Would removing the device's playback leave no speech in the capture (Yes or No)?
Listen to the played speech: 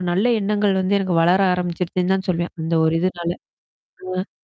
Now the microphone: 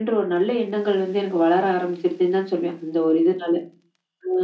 Yes